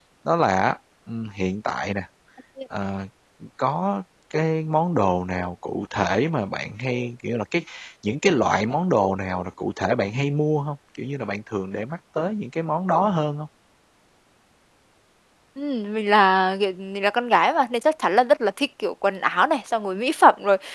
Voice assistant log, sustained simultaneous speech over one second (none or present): none